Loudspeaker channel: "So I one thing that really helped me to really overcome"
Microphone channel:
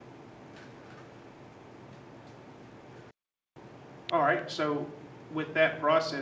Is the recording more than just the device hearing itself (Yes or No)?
Yes